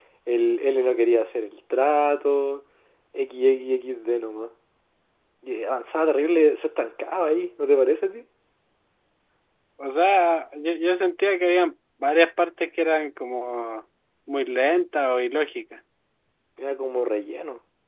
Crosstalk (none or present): none